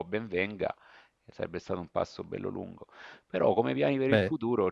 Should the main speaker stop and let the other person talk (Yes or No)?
No